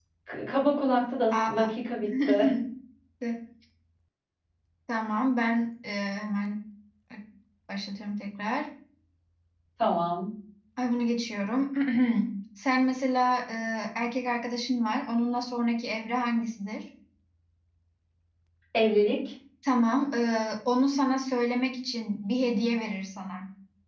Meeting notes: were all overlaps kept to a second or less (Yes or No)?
Yes